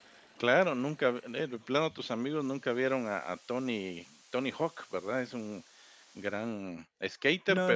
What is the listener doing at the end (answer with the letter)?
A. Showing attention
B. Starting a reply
B